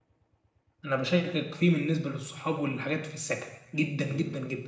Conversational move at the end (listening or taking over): listening